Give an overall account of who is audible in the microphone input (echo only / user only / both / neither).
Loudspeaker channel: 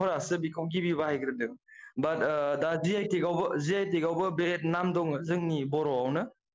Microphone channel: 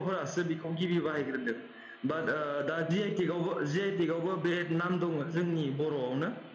echo only